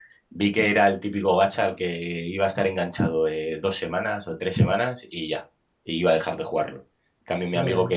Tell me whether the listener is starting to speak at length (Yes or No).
No